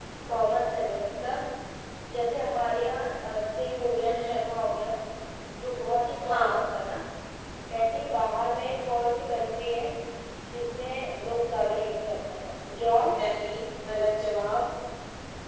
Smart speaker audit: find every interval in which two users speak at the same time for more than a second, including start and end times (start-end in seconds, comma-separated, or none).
none